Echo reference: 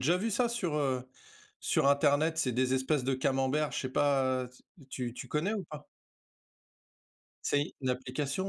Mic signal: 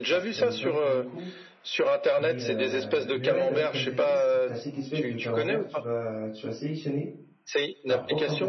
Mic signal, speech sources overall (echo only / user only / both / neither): both